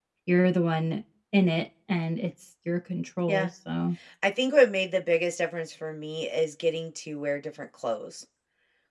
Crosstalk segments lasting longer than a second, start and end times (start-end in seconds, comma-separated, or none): none